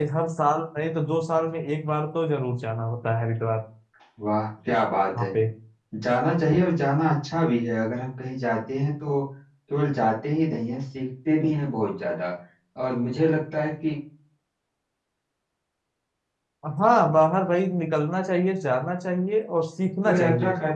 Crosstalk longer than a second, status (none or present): none